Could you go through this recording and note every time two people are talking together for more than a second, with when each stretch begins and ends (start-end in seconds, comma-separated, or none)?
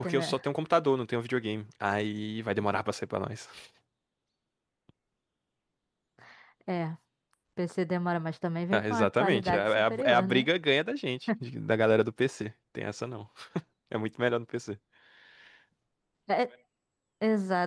8.7-10.5